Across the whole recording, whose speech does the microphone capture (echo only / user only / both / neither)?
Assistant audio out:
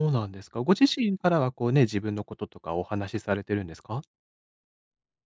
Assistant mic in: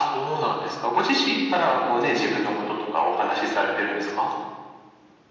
echo only